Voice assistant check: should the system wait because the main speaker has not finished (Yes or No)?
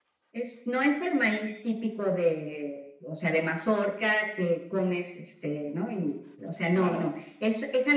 Yes